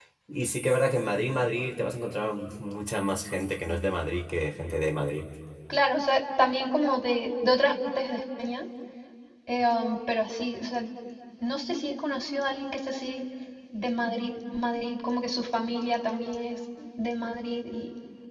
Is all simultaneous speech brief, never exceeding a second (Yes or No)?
Yes